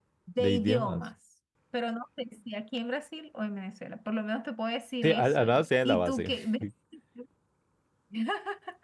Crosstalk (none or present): present